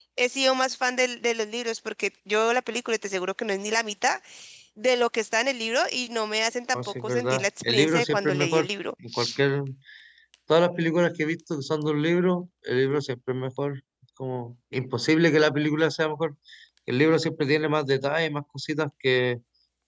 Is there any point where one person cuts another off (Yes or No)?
Yes